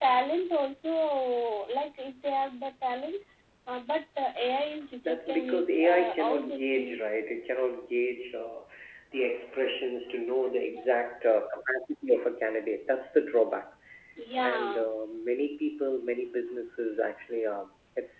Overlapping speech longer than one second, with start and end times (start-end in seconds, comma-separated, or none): 5.0-7.0